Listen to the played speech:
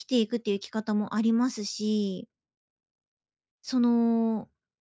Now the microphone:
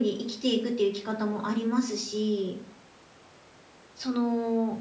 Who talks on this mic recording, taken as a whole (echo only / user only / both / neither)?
echo only